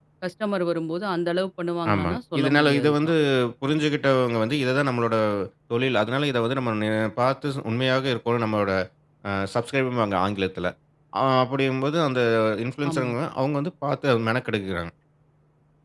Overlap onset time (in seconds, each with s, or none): 1.9 s